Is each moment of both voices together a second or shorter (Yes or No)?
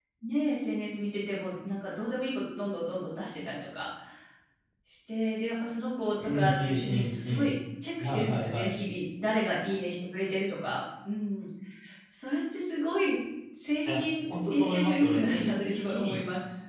No